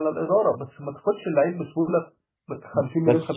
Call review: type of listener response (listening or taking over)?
taking over